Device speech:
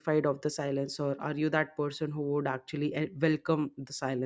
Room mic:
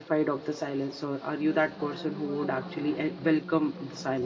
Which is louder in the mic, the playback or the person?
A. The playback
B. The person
A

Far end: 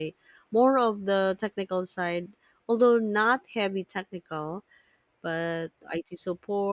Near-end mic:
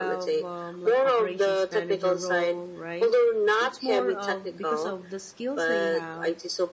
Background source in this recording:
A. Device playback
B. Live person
B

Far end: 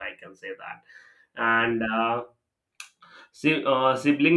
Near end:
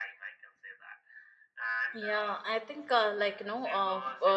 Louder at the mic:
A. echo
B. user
B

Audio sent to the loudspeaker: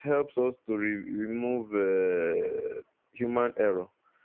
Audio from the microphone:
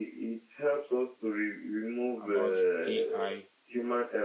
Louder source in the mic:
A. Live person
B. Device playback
B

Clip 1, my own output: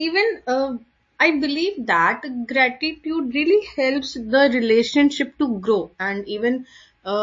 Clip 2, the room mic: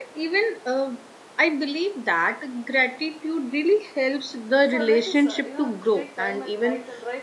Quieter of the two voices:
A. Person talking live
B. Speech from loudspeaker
A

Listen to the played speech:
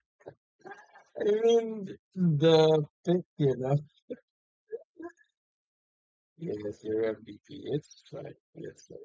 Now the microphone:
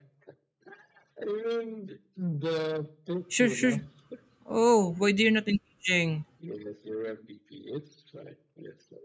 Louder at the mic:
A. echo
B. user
B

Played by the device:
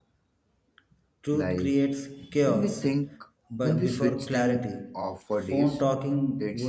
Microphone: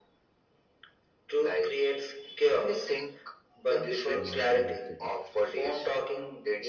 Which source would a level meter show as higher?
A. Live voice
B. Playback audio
B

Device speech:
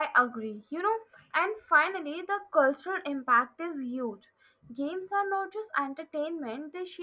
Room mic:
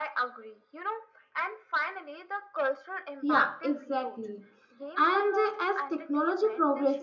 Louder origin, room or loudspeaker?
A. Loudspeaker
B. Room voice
B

